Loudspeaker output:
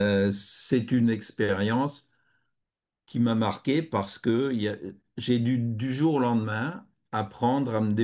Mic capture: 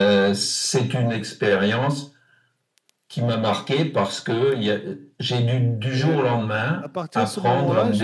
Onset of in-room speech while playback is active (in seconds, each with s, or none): 5.9 s